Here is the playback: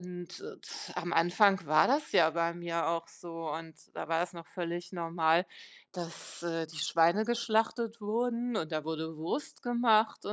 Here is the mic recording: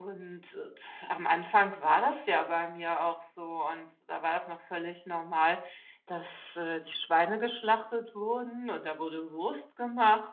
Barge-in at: none

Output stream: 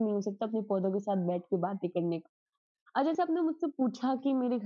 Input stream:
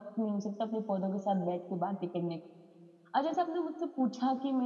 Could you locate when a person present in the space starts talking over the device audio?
none

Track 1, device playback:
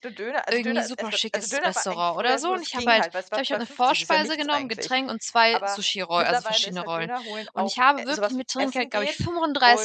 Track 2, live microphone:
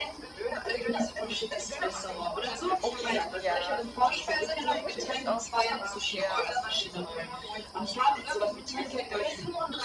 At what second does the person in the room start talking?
1.8 s

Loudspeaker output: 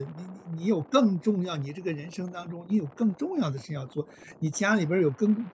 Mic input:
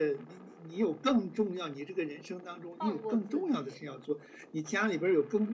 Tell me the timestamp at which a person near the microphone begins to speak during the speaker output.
2.8 s

